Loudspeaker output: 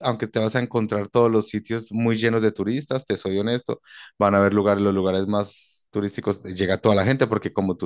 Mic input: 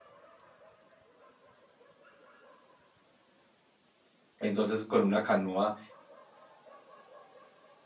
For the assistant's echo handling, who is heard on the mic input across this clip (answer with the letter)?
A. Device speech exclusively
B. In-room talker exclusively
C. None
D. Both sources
B